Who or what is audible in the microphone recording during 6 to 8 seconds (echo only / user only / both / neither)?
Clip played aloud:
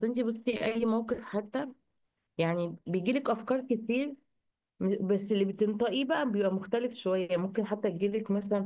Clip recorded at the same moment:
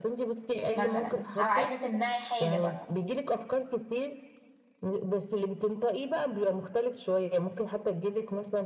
echo only